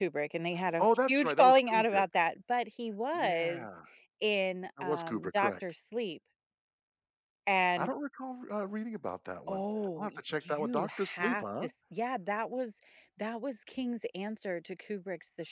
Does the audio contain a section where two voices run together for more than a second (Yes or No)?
Yes